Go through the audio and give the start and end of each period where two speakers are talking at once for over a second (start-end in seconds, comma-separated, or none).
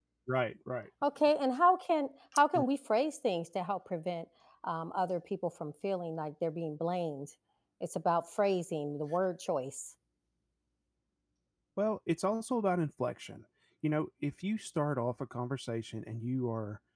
none